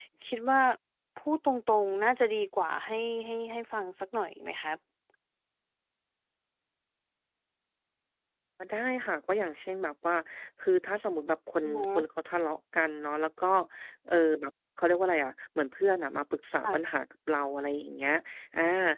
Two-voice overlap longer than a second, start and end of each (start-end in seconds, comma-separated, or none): none